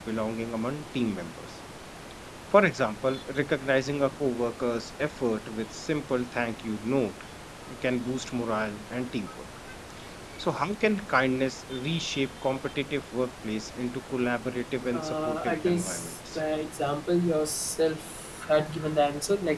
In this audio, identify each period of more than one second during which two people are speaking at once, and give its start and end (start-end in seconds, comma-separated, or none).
14.9-16.4